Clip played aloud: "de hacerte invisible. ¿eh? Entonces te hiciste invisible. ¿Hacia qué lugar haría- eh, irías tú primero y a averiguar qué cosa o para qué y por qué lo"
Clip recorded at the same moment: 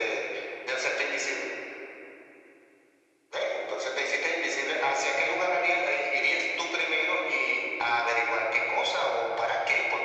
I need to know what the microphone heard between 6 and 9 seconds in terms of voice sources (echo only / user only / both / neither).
echo only